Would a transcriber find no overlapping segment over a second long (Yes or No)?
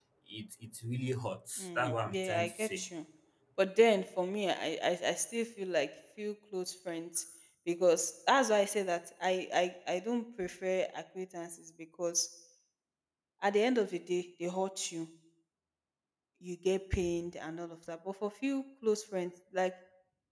No